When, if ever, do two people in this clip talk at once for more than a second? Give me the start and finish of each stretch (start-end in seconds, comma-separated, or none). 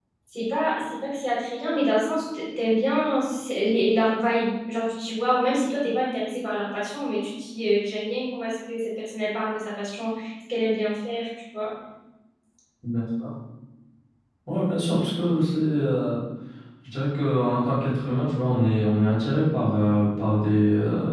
none